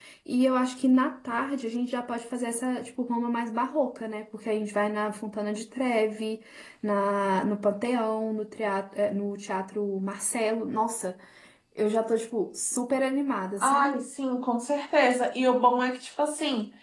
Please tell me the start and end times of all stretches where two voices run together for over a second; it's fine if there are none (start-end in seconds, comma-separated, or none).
none